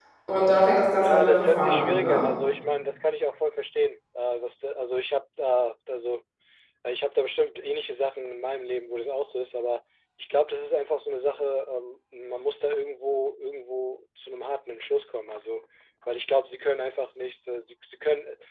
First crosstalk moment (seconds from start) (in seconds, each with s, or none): 1.0 s